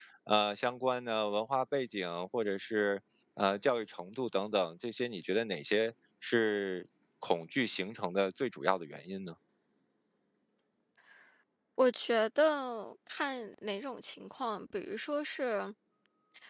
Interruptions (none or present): none